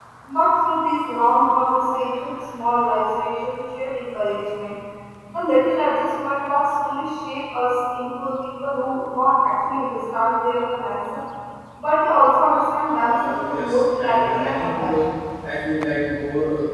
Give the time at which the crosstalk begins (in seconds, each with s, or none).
13.1 s